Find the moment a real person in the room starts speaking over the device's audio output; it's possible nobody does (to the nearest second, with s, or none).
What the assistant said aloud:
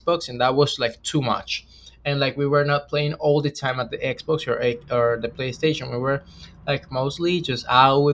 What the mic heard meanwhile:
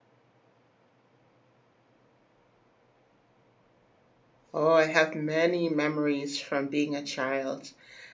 5 s